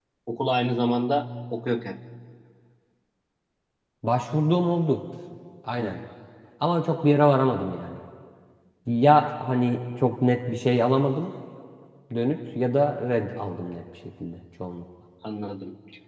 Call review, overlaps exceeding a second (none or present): none